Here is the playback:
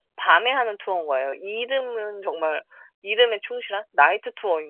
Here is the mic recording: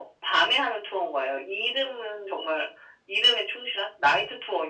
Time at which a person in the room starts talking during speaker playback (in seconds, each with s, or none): none